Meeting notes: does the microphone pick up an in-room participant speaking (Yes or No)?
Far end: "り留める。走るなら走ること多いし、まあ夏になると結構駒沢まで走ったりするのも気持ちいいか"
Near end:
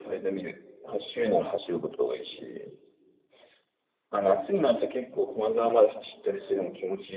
No